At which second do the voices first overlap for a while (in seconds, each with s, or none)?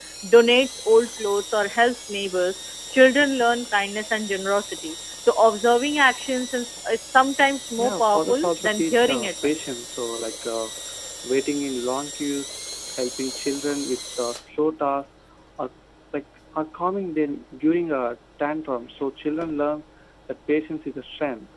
7.8 s